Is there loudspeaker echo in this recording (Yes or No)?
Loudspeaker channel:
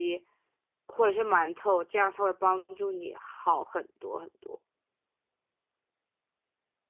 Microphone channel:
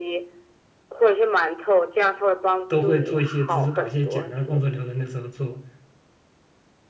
Yes